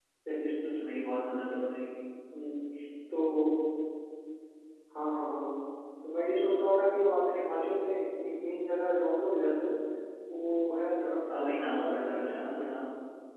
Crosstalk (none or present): present